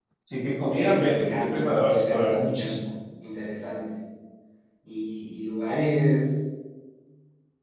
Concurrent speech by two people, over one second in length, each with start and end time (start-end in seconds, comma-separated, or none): 0.6-2.8